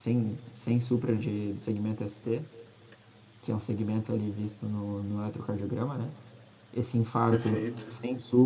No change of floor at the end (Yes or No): Yes